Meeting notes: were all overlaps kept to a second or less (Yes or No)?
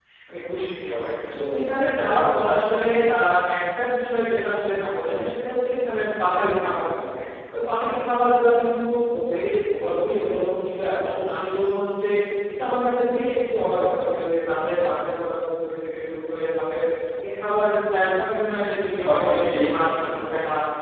No